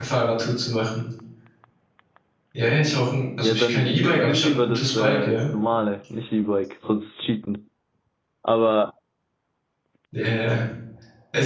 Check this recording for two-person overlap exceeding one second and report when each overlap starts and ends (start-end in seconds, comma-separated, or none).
3.4-5.4